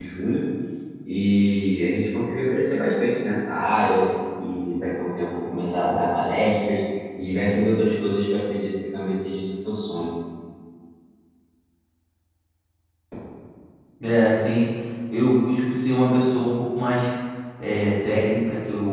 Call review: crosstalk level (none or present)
none